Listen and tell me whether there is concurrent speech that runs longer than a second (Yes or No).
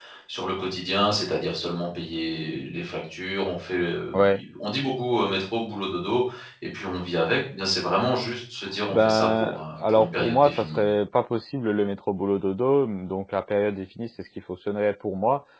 Yes